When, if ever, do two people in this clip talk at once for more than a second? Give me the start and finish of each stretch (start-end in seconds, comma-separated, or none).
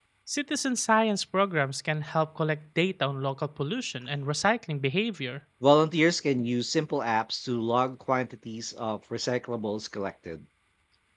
none